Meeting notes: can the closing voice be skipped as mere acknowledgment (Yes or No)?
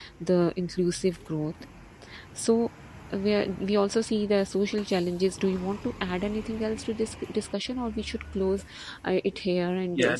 No